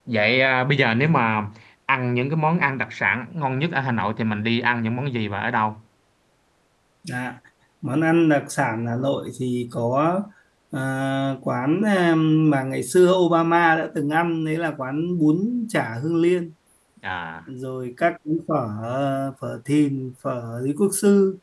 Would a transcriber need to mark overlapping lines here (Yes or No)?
No